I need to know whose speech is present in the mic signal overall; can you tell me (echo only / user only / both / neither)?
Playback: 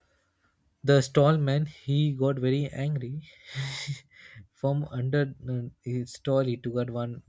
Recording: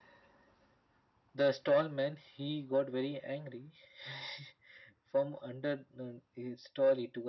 echo only